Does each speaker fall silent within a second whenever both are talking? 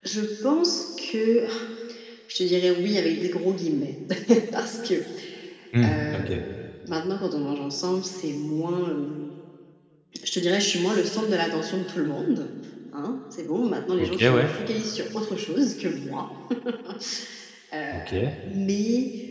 Yes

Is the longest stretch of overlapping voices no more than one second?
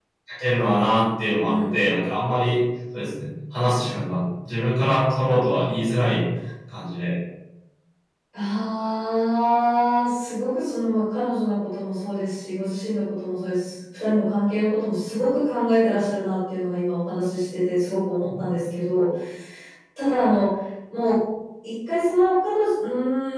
Yes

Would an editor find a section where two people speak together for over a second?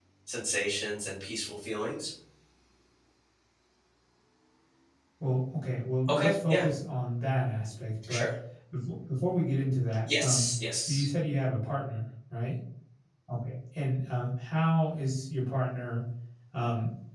No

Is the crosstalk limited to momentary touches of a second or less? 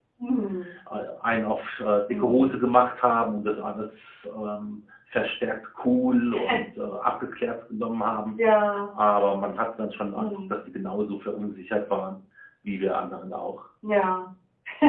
Yes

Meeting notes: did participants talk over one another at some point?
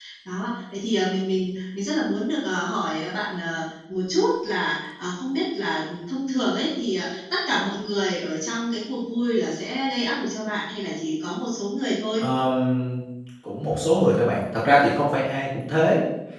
No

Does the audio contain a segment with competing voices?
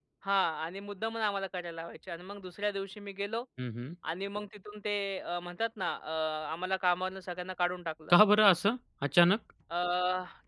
No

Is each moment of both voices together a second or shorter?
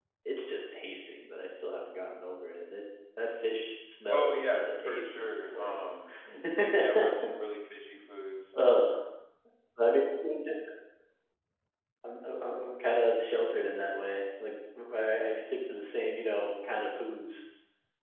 No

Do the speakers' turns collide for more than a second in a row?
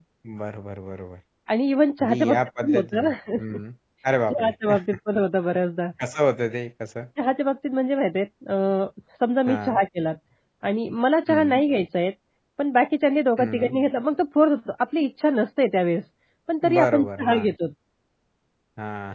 Yes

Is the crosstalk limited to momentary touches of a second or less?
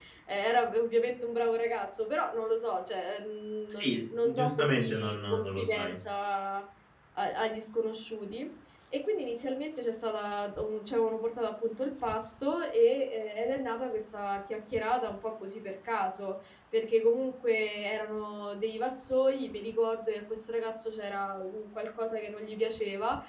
No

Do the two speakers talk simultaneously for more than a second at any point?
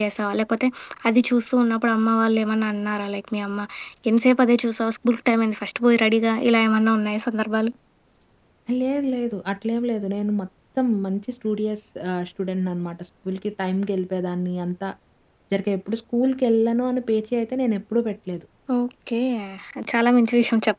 No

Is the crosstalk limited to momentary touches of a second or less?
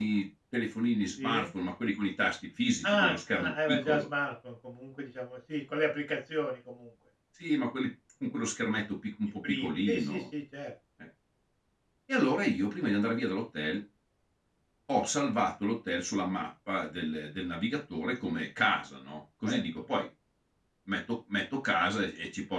No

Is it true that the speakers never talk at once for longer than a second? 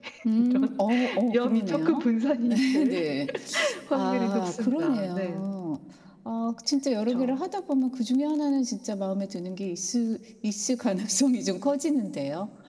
No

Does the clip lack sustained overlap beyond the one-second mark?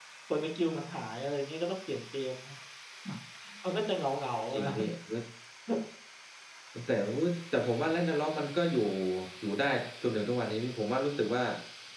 Yes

